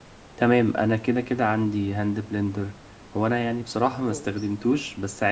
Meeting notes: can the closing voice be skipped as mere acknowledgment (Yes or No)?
Yes